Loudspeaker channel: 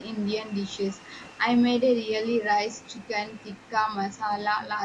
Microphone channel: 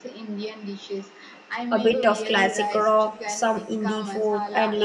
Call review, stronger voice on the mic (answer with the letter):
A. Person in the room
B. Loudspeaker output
A